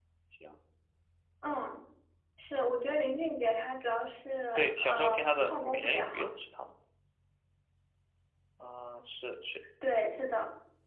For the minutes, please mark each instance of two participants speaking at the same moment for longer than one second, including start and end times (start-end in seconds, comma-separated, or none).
4.5-6.3